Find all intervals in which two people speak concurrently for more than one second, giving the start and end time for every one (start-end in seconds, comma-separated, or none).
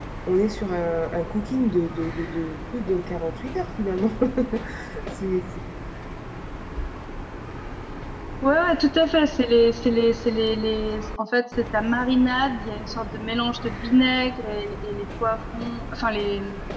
none